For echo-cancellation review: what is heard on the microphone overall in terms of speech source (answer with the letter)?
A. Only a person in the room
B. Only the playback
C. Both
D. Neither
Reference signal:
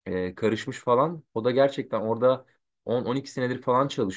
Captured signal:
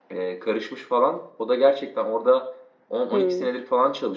C